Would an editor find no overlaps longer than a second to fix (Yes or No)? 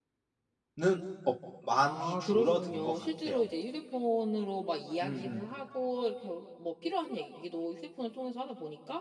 No